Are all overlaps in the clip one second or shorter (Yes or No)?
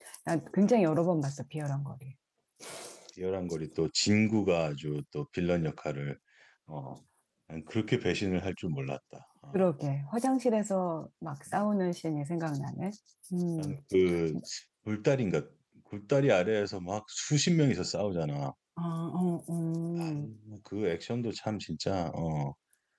Yes